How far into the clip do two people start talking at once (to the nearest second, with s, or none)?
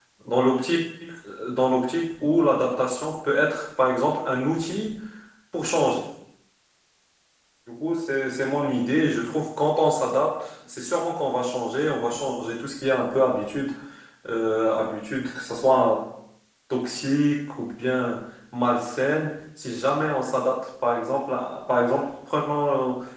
none